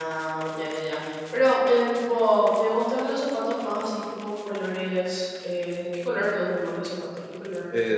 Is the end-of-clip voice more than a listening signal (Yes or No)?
Yes